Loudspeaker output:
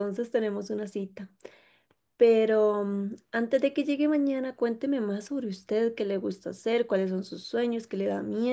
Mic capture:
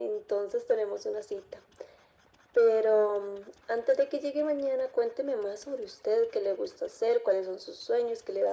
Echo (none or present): present